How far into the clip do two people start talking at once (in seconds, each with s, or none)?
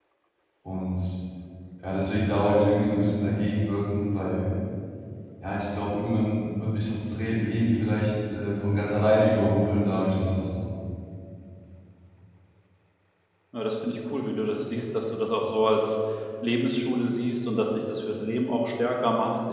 none